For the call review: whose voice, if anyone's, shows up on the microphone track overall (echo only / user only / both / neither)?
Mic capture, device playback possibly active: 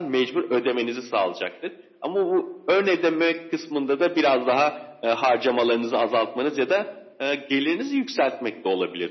echo only